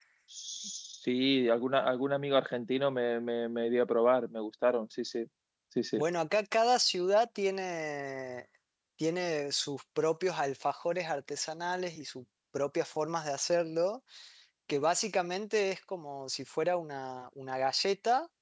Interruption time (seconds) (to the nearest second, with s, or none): none